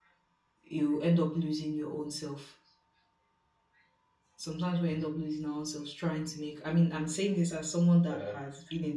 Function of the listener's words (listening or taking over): listening